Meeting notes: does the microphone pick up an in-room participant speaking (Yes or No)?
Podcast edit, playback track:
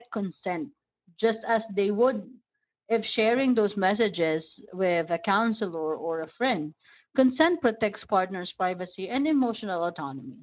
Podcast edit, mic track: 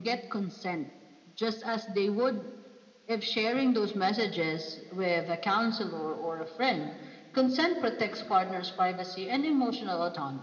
No